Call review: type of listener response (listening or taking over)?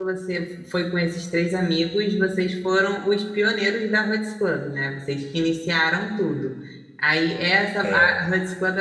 listening